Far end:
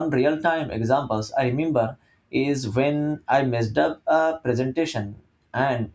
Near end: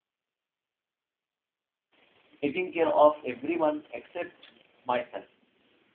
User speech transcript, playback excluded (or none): taking care of everyone except myself.